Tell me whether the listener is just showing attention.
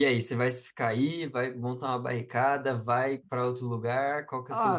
No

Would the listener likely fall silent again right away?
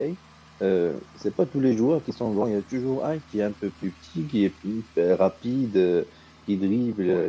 Yes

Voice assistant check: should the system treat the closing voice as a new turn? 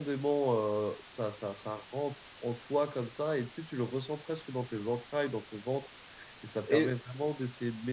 No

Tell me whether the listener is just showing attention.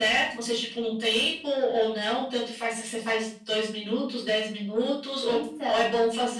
Yes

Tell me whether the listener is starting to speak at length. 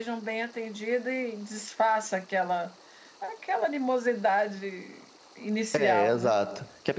Yes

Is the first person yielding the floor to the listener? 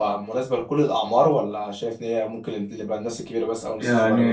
Yes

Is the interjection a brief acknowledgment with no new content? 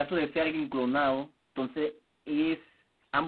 No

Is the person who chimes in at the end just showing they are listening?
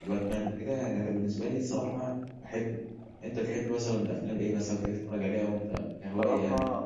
No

